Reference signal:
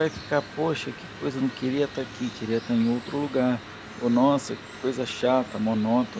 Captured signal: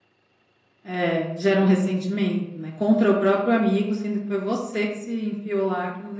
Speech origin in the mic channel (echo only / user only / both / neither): user only